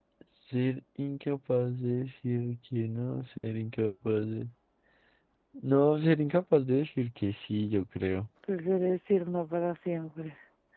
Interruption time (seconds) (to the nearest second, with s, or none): none